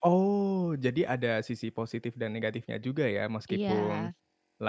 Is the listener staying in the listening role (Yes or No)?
Yes